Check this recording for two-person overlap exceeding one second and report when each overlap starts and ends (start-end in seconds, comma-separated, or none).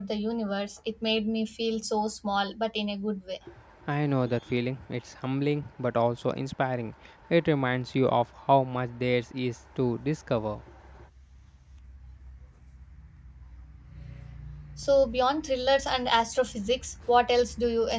none